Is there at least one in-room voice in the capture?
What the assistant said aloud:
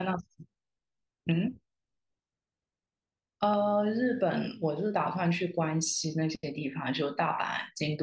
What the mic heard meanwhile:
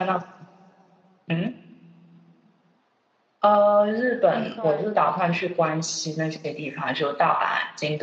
Yes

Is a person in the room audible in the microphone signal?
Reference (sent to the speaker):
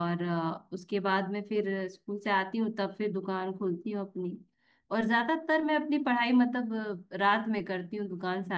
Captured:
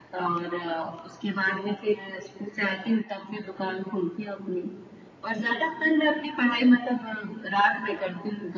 Yes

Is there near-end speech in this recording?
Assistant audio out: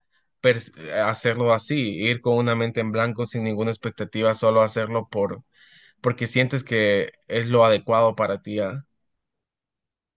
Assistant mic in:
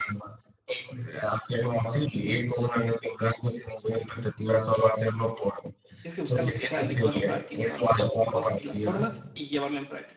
Yes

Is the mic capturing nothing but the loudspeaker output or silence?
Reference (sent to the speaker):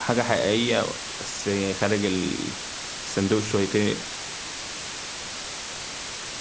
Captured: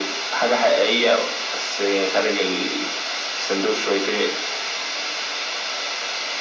Yes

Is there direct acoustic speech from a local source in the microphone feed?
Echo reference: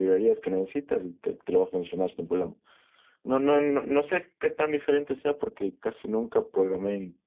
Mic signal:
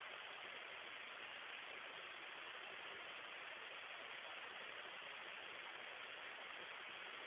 No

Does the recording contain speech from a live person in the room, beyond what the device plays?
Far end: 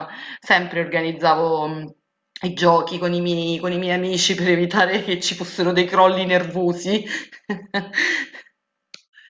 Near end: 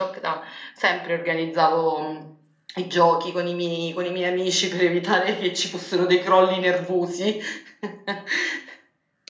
No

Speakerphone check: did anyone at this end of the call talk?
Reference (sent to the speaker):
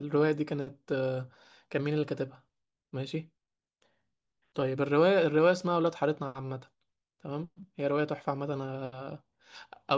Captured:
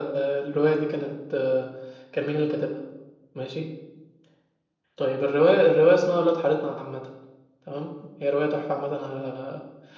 No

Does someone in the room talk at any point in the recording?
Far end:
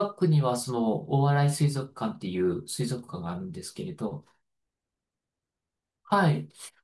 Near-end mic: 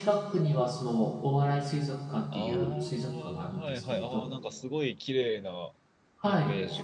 Yes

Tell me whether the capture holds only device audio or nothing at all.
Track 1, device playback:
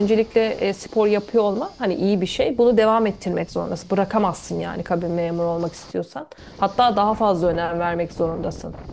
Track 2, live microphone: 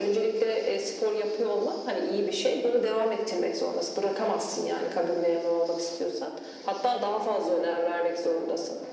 Yes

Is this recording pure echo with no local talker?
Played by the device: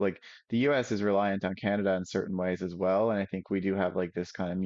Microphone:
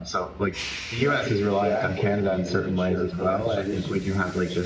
No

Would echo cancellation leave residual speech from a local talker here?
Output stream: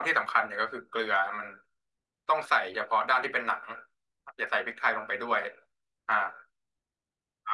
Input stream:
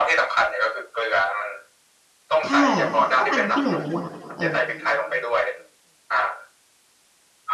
Yes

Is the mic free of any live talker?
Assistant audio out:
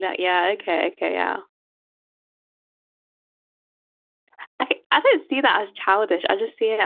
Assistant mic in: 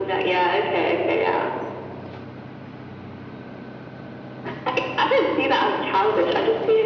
Yes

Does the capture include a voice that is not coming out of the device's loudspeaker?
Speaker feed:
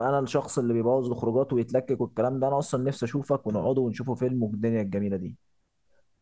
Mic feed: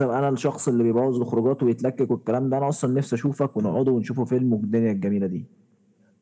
No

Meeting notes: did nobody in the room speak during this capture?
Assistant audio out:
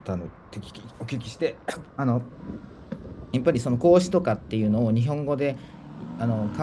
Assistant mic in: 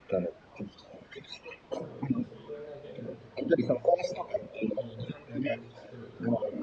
No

